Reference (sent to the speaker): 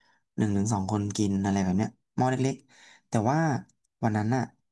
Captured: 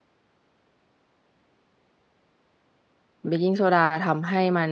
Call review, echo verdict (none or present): none